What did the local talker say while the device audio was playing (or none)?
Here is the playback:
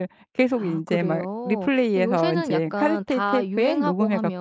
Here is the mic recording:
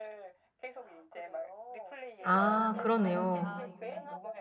아 그러네요.